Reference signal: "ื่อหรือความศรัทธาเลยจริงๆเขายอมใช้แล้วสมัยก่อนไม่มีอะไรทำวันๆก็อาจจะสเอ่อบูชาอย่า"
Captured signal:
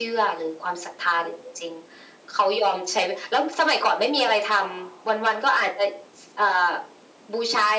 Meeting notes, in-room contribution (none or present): present